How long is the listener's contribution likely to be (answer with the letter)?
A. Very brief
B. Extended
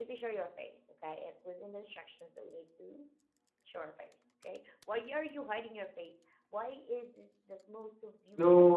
B